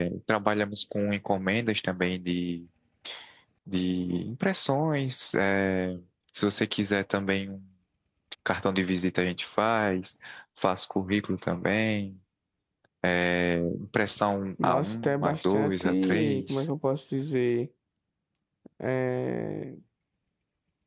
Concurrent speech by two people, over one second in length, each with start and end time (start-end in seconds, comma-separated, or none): 14.6-16.6